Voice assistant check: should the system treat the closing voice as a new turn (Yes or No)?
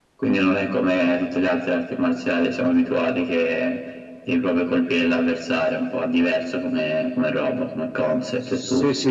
Yes